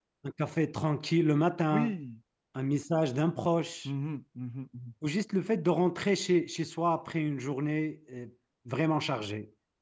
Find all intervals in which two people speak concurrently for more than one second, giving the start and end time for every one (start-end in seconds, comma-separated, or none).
none